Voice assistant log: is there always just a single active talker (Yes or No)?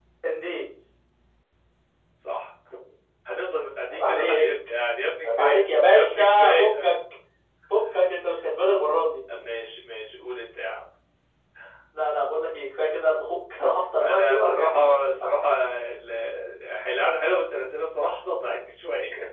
No